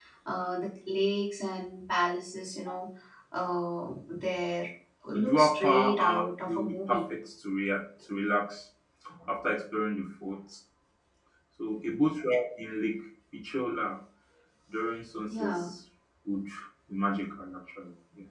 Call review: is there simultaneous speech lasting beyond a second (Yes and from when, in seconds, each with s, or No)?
Yes, from 5.1 s